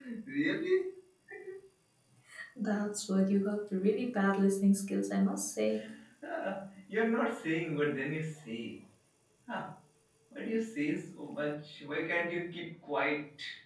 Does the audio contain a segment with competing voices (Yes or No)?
No